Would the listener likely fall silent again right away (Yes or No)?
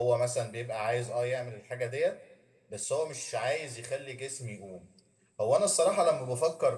Yes